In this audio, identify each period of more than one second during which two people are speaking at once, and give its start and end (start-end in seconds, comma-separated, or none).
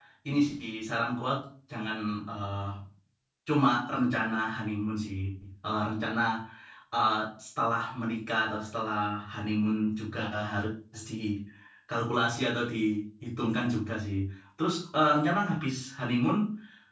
none